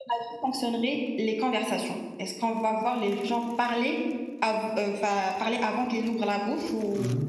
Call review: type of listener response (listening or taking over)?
taking over